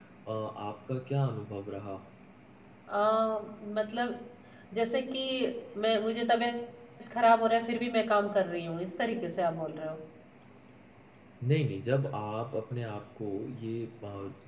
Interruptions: none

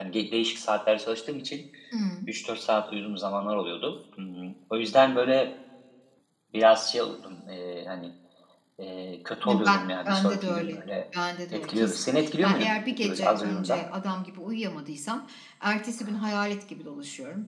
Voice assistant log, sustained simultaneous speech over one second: present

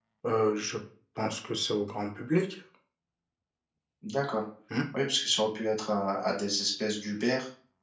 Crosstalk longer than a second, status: none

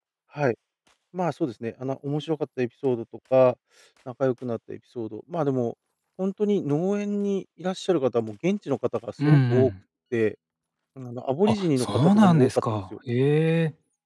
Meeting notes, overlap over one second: present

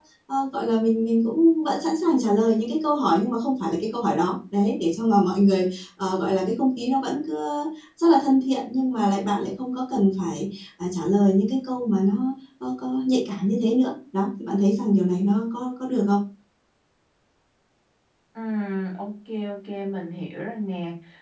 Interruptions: none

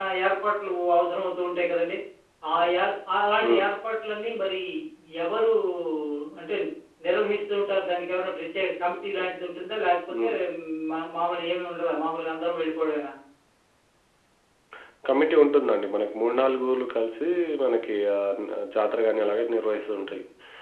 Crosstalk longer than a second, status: none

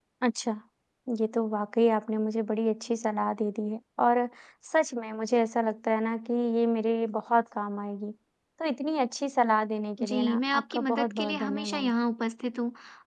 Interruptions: present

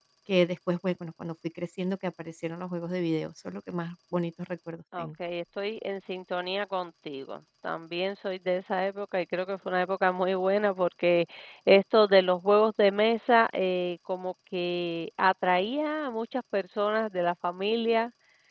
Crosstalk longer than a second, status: none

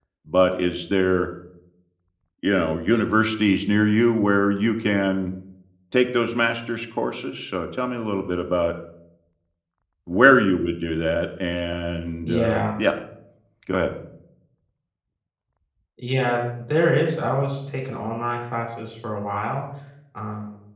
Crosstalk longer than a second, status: none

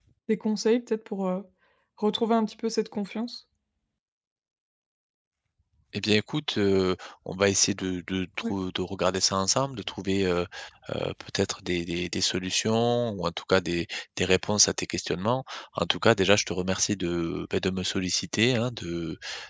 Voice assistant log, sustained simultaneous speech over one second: none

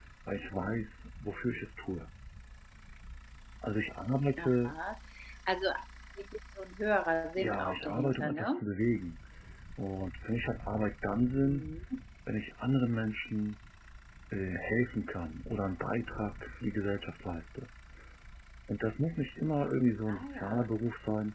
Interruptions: present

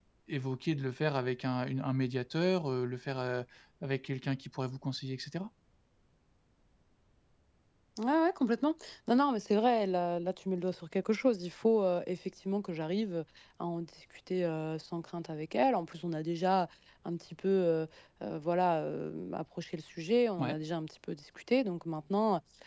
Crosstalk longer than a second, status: none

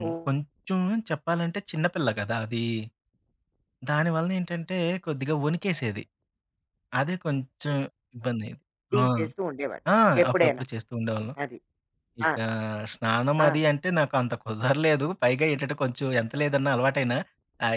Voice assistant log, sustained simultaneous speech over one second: none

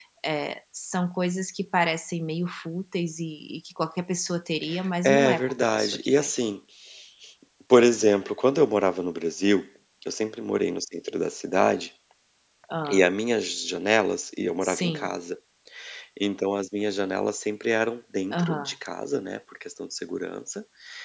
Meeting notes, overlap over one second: present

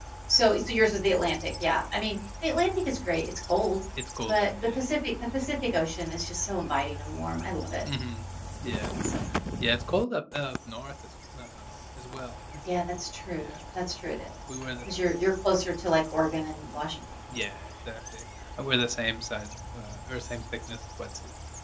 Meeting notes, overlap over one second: none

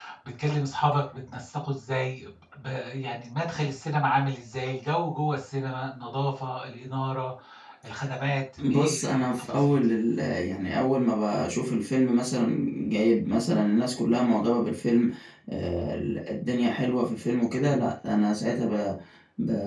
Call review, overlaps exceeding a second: present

